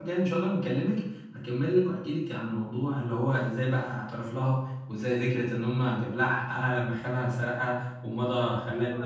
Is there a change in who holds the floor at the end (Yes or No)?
Yes